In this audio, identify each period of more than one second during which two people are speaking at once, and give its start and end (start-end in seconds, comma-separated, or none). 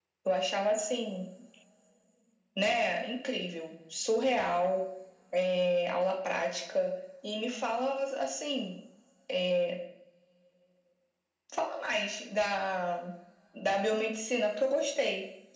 none